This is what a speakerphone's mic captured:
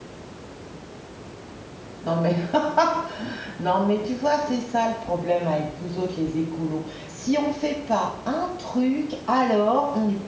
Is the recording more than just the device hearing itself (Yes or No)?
Yes